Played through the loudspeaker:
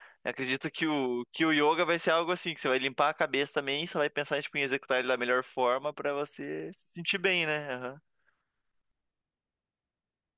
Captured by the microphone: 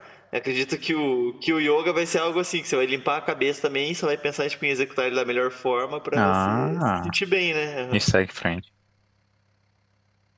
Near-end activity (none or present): present